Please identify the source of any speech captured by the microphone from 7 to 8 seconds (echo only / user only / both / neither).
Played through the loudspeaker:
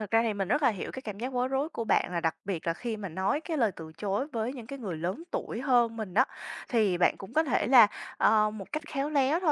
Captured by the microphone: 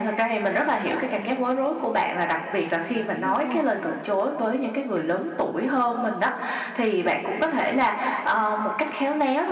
echo only